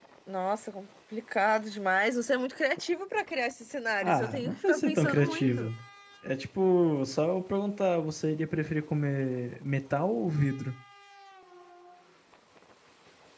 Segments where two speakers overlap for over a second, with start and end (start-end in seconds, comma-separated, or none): 4.0-5.7